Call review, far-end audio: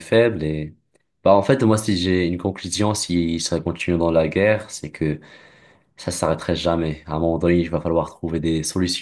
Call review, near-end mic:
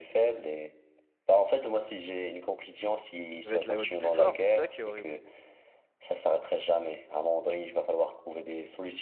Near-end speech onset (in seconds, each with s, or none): 3.4 s